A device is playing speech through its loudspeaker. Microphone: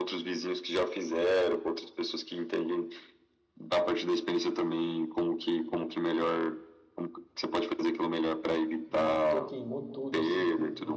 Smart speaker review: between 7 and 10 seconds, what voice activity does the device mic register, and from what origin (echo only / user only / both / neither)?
both